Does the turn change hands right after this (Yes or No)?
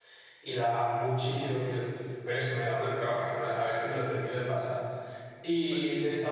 No